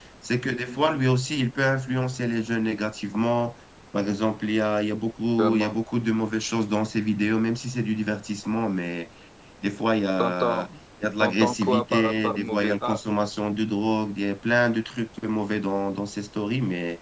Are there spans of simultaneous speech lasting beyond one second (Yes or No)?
Yes